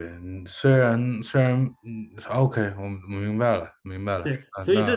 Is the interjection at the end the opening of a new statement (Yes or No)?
Yes